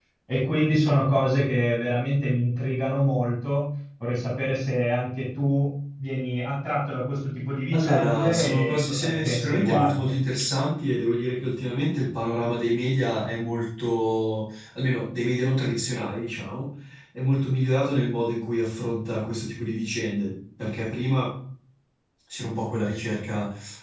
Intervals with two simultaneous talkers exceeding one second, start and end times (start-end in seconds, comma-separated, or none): 7.7-10.1